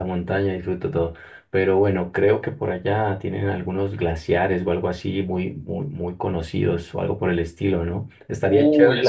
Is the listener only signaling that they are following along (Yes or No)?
Yes